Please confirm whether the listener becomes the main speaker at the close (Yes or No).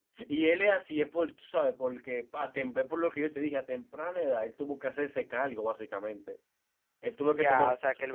Yes